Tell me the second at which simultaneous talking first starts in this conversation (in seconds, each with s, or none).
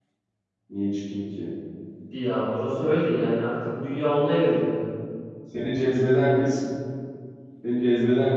none